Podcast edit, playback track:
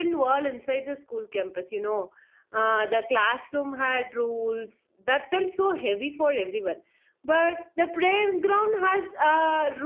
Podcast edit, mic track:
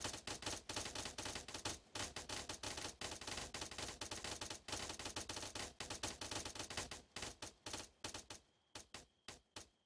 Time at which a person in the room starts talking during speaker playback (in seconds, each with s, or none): none